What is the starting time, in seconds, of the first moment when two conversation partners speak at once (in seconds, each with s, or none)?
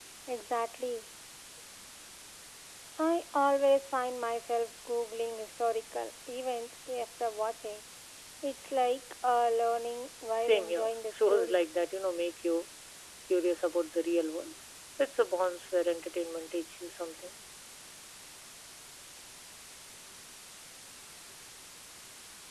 10.4 s